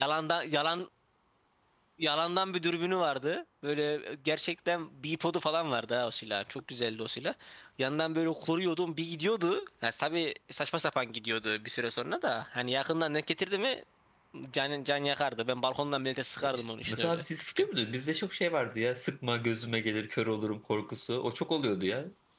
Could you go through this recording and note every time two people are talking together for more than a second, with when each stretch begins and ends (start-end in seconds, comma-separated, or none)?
16.4-17.7